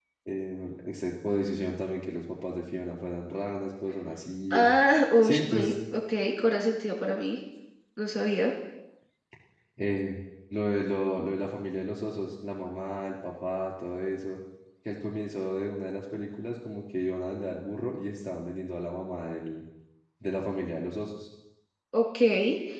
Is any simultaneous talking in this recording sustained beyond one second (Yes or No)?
No